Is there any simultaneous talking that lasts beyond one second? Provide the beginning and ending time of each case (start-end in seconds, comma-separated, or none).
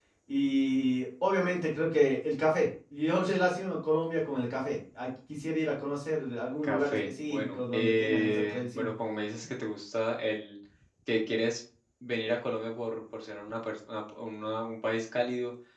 6.6-8.9